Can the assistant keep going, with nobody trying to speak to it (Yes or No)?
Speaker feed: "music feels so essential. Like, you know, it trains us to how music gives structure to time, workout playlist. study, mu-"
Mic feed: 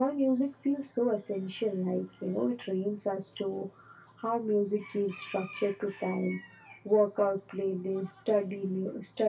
Yes